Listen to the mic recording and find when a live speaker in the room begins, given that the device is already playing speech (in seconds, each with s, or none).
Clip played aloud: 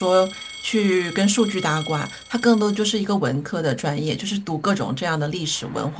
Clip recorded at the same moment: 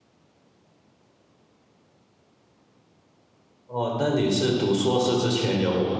3.7 s